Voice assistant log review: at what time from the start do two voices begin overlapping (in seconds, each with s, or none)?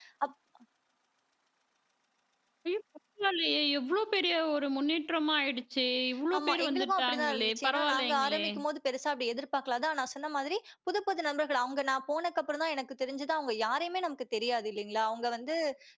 6.3 s